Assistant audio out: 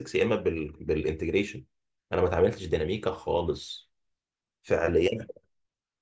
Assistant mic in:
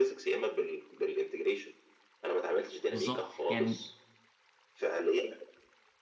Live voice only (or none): بالظبط يعني